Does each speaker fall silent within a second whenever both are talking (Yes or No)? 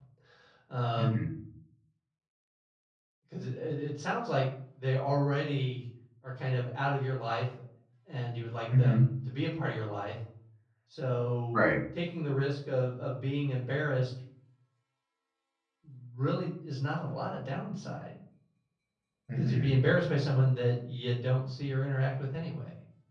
Yes